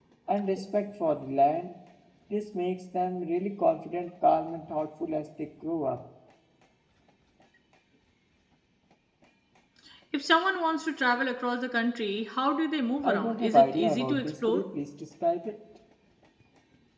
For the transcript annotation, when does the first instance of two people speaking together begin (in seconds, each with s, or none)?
13.0 s